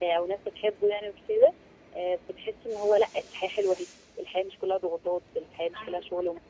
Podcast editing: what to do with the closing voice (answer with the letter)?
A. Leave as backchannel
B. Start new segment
B